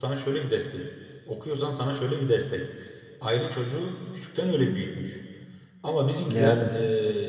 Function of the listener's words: listening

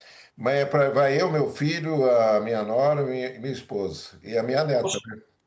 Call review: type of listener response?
taking over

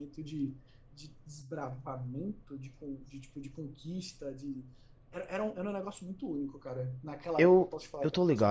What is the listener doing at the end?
taking over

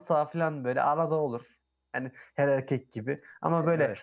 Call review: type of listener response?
listening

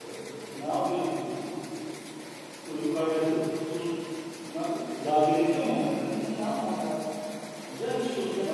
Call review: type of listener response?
listening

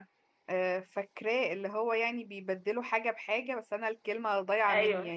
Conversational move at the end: taking over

